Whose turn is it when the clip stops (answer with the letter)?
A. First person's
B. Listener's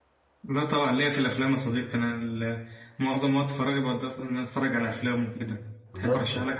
B